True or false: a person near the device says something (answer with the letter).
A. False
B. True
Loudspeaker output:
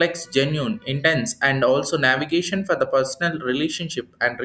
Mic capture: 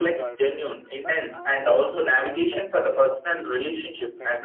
B